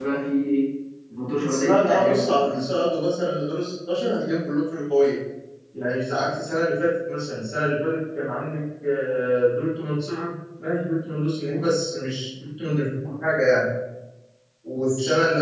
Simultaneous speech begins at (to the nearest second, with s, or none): 1 s